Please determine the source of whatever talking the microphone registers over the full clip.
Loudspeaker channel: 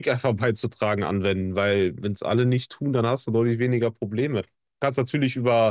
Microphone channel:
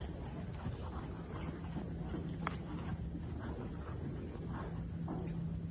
neither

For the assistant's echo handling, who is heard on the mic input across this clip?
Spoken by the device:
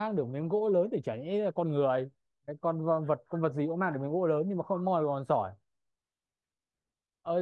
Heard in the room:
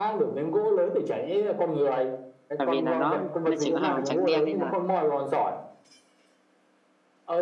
both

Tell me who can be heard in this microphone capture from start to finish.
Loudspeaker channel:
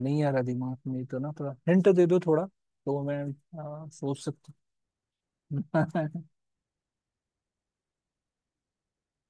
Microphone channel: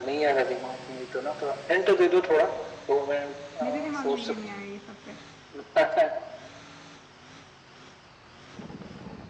both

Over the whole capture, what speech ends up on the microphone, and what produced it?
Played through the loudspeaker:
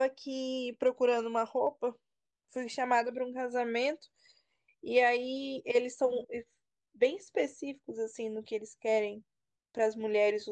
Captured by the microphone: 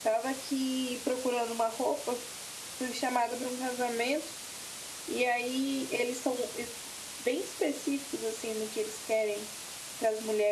echo only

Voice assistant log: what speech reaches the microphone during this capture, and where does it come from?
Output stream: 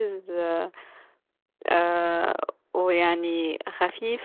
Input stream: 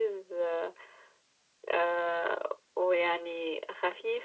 echo only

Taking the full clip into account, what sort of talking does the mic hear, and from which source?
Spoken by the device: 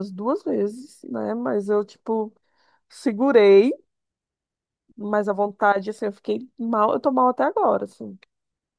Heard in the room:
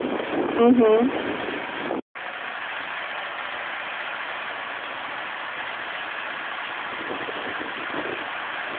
user only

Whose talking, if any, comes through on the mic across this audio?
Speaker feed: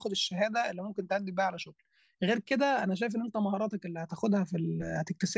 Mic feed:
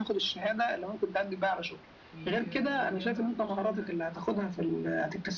both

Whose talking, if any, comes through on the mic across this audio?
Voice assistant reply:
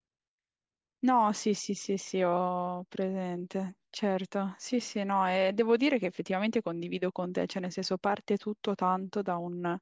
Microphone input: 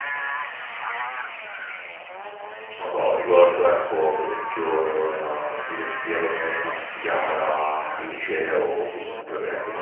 user only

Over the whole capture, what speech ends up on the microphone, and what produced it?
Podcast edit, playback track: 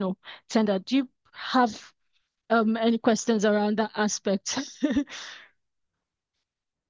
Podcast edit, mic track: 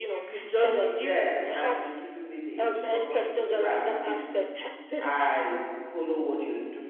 both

